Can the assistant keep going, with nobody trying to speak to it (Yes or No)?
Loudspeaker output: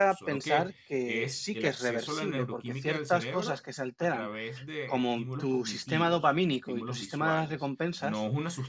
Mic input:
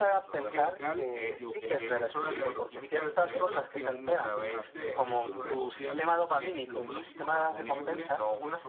No